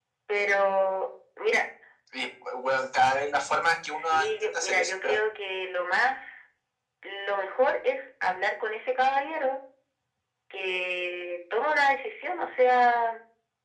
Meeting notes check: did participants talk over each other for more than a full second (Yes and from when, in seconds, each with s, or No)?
Yes, from 3.9 s